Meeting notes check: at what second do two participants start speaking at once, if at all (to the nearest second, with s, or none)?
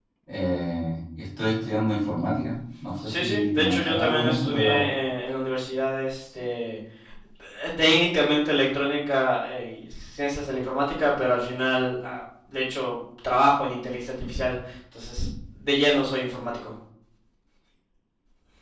3 s